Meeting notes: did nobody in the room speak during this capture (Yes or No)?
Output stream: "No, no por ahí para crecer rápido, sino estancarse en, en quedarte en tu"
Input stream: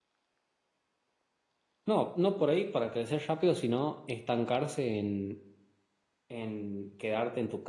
Yes